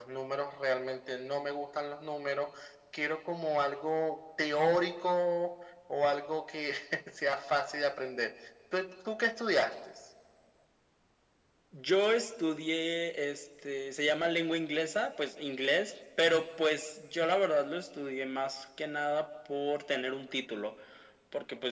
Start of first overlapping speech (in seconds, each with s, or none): none